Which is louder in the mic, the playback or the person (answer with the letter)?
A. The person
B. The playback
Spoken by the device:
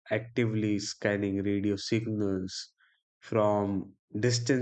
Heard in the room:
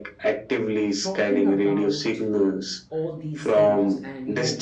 B